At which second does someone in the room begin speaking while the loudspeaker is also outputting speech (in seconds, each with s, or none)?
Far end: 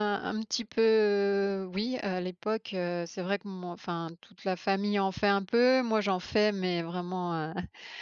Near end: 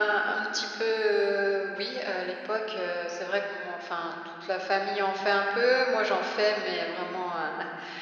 none